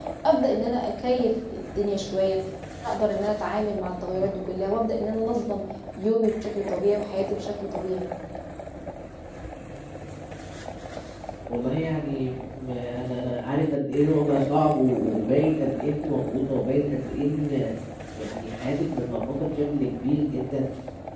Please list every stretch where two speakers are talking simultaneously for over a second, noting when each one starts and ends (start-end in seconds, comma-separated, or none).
none